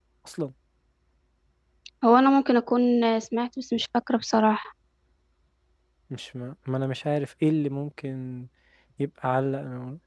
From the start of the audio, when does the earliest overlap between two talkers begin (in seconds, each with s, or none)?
none